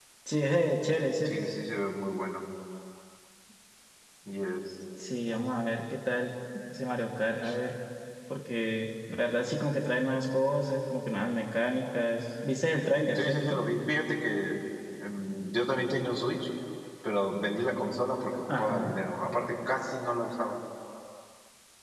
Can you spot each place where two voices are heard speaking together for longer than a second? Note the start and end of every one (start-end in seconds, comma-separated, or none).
none